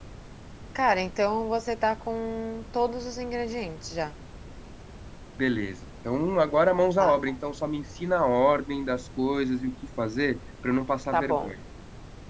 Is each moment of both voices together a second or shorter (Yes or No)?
Yes